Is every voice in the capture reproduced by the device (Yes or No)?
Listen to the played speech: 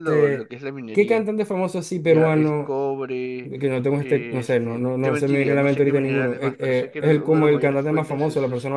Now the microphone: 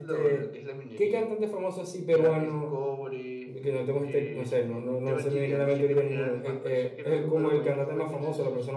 Yes